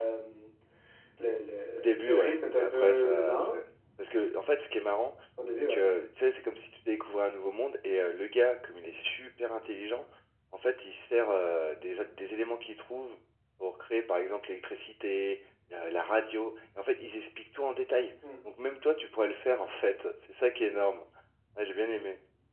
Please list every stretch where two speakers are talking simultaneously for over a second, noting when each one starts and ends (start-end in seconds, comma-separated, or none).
1.8-3.5